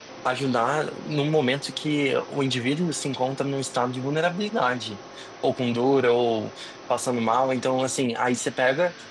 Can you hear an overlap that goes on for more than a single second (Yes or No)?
No